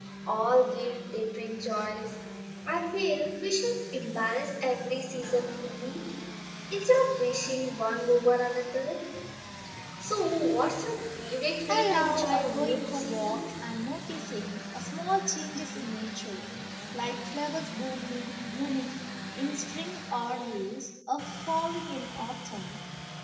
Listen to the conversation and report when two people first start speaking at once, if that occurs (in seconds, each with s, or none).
11.7 s